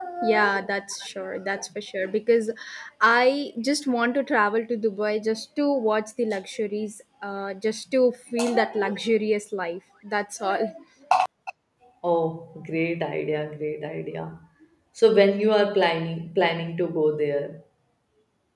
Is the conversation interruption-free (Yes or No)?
Yes